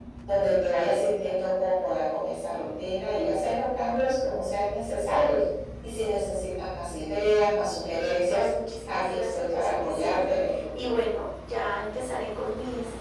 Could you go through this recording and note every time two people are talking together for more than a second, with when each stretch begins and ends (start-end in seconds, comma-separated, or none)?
8.9-10.1